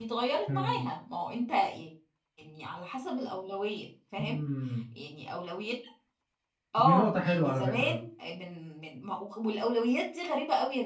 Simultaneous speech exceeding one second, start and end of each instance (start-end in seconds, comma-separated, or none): 6.8-8.0